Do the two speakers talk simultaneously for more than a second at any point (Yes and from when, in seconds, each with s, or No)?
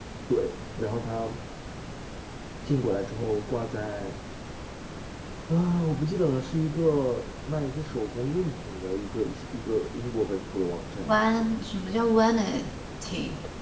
No